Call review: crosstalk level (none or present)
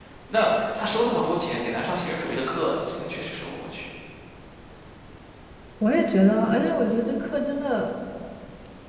none